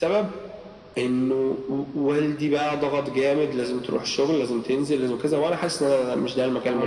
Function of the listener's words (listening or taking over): taking over